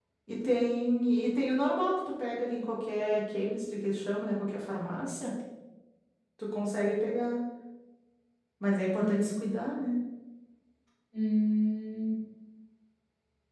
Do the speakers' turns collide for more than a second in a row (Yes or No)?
No